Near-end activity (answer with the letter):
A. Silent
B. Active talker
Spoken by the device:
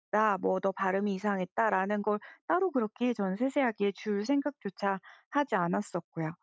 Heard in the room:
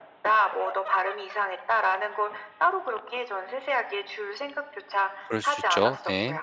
B